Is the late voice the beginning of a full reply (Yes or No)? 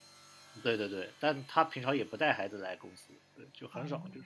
No